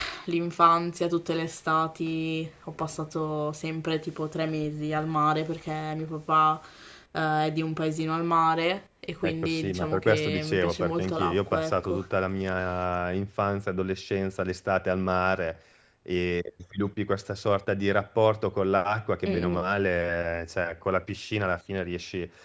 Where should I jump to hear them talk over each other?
9.2 s

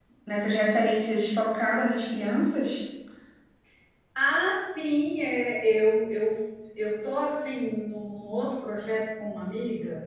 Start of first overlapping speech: none

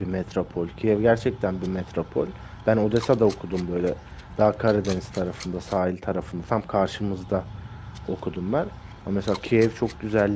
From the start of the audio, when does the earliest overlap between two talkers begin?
none

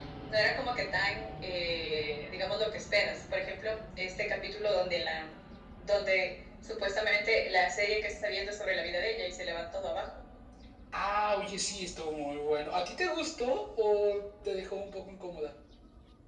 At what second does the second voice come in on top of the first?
none

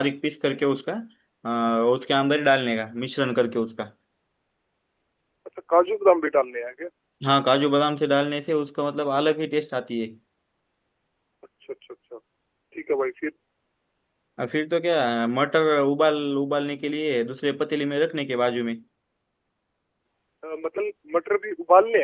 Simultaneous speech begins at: none

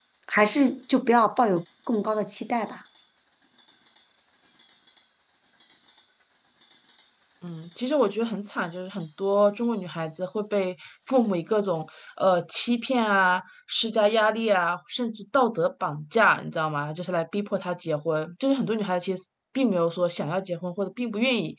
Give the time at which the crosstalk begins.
none

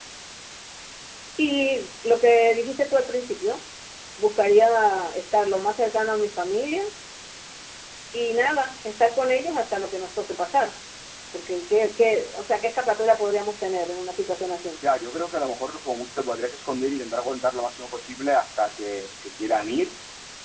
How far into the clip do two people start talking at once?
none

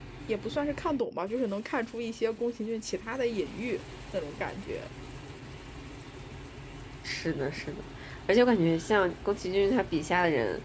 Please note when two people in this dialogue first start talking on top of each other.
none

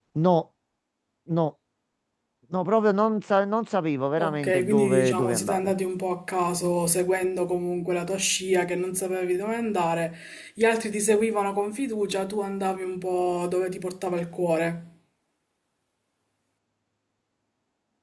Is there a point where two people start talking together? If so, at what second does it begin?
4.2 s

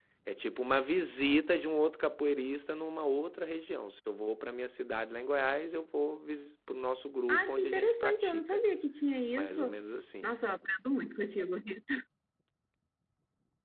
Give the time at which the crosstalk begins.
7.3 s

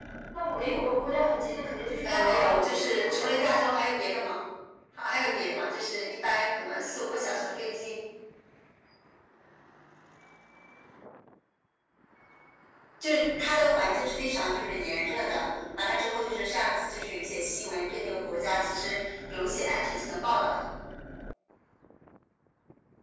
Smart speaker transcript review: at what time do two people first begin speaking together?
2.0 s

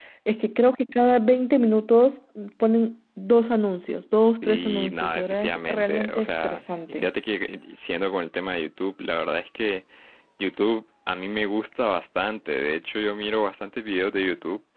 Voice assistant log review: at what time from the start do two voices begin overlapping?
4.4 s

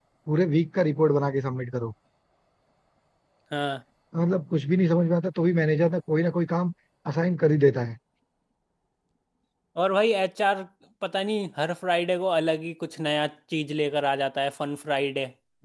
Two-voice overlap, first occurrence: none

